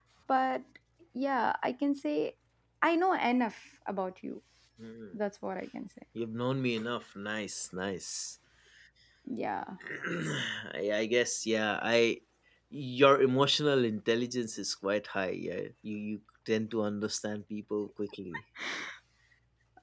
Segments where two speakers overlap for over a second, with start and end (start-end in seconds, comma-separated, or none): none